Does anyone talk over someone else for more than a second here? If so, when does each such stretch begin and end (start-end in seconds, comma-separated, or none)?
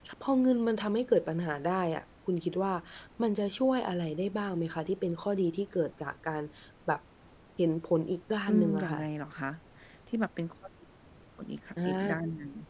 none